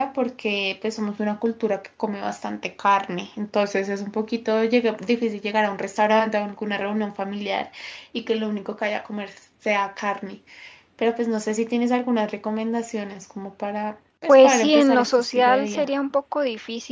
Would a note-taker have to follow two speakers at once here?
Yes, from 14.3 s

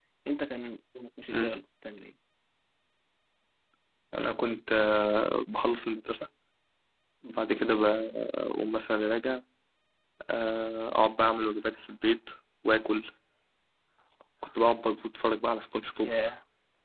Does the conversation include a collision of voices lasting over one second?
No

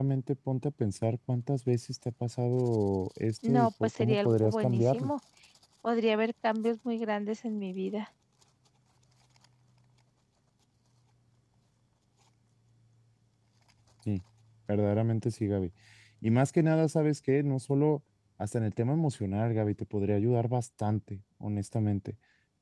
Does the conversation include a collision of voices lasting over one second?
Yes, from 3.4 s

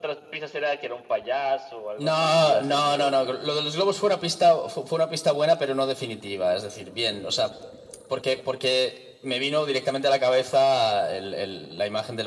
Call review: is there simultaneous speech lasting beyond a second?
Yes, from 2.0 s

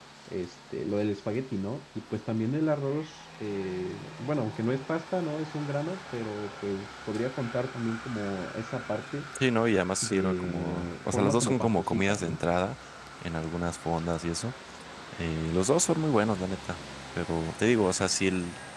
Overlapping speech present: Yes, from 10.0 s

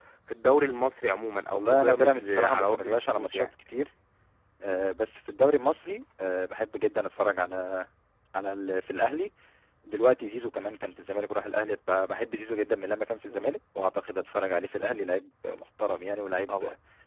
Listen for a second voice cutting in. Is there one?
Yes, from 1.5 s

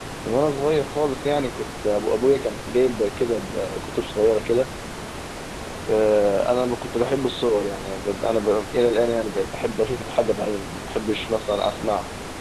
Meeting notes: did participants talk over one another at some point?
No

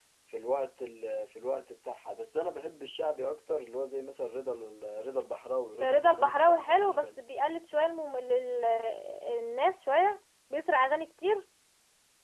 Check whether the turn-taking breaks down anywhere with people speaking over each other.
Yes, from 5.8 s

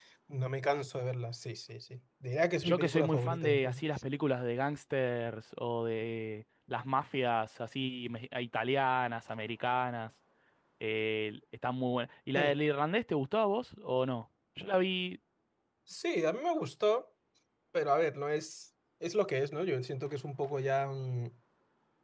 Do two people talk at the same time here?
Yes, from 2.6 s

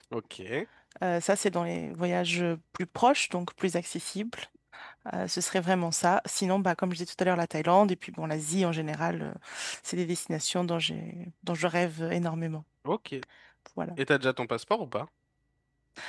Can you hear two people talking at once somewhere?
No

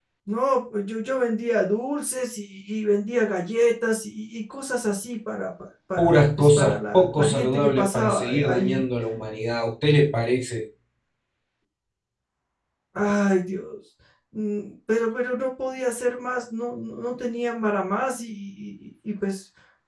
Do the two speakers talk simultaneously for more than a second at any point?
Yes, from 6.0 s

